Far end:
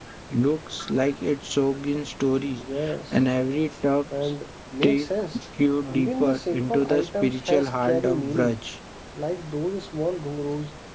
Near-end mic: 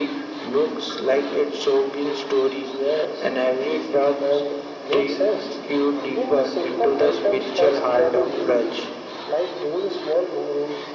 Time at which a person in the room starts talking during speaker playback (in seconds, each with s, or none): none